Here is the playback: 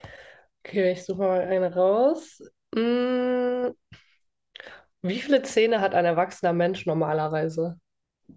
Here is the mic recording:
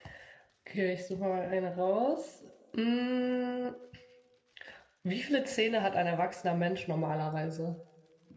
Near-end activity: none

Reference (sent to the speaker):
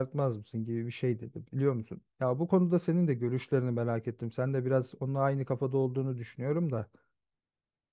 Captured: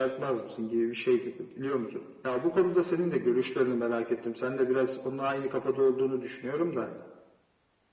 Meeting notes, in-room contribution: none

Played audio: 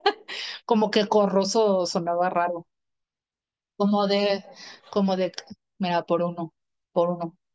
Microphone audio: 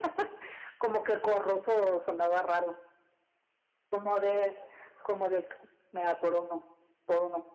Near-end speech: none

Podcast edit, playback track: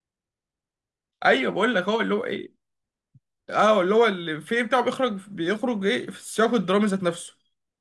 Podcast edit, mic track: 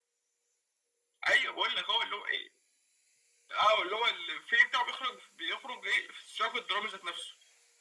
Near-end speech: none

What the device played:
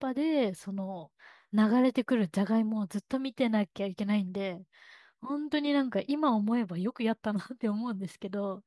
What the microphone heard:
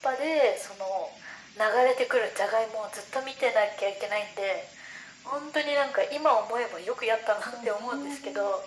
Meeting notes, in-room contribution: present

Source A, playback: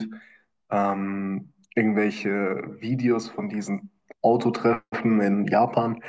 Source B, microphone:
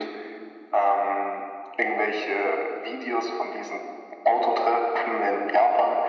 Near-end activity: none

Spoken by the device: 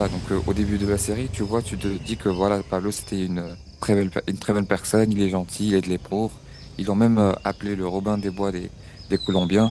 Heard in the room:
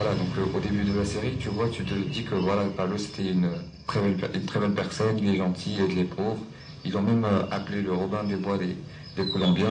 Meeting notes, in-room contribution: none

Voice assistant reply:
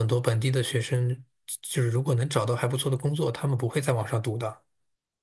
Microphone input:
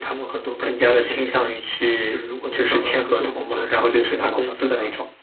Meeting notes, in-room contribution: present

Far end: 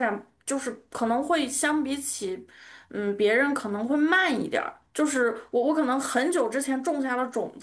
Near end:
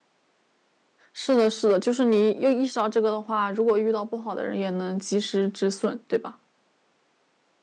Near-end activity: present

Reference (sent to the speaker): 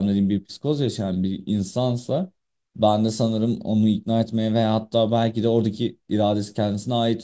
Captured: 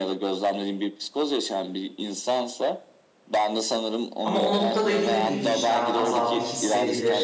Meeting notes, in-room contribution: present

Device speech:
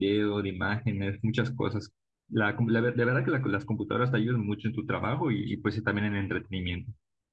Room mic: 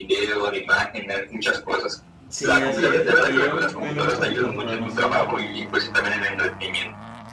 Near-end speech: present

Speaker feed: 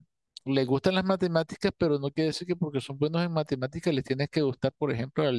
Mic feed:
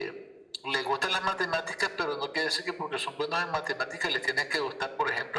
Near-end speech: none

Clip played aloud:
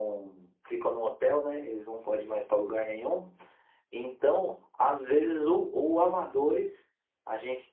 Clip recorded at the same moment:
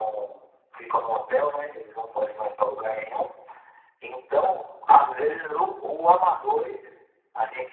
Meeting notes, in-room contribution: none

